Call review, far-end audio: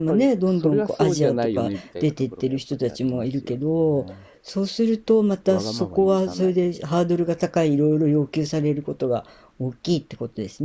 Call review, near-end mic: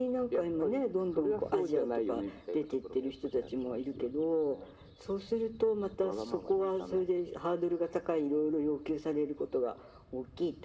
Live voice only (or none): none